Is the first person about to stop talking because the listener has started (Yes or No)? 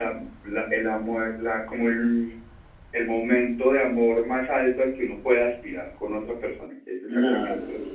Yes